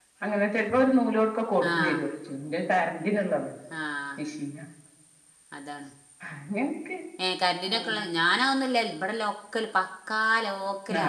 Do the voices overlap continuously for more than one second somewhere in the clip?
No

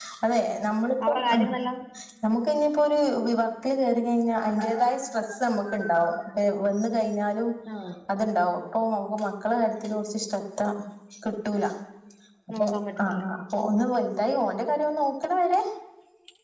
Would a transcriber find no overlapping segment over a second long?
Yes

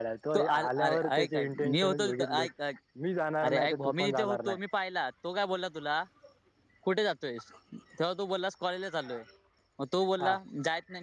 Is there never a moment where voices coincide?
No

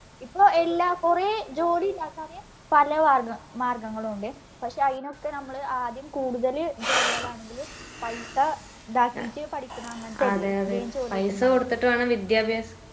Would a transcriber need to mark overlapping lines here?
Yes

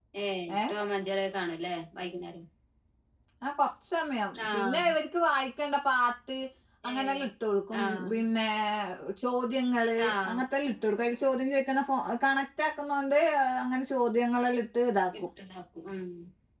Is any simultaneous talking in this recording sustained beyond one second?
No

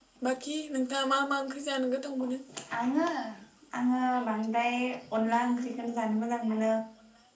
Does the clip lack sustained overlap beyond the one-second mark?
Yes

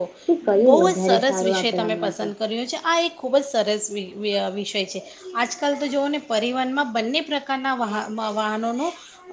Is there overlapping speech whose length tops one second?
Yes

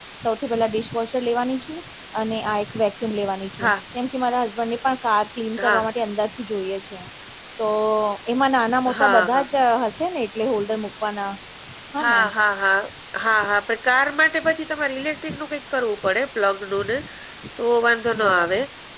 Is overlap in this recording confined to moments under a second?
Yes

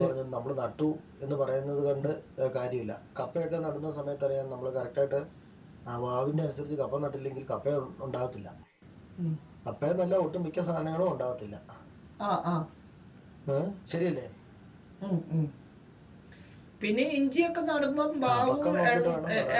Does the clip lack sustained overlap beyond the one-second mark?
No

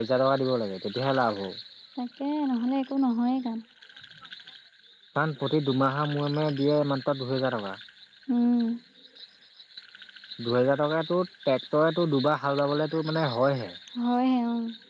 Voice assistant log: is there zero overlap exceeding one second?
Yes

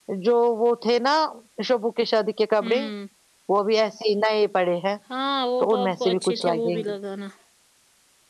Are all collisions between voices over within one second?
No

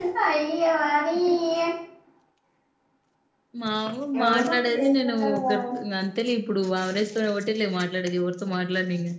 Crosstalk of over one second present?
Yes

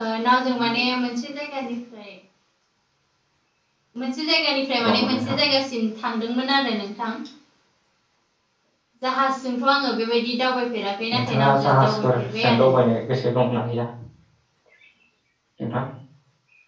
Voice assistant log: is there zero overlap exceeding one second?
No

